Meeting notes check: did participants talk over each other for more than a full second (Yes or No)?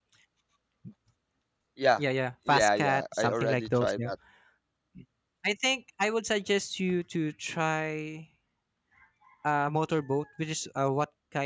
Yes